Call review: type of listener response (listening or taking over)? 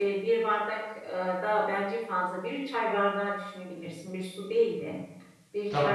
listening